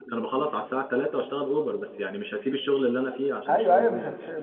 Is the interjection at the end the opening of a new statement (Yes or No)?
Yes